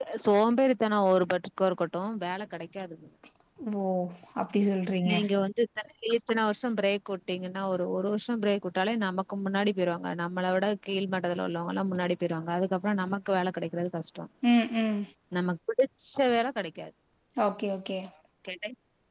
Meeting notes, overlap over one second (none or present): none